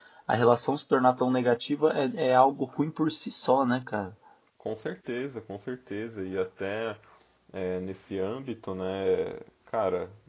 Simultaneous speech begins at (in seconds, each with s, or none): none